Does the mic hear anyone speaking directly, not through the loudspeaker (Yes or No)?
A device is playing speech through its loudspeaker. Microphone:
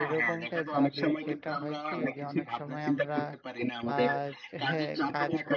Yes